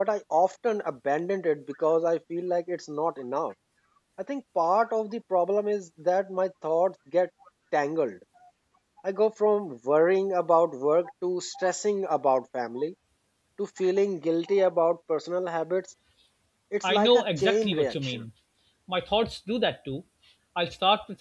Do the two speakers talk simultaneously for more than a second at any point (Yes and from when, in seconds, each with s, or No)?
Yes, from 16.8 s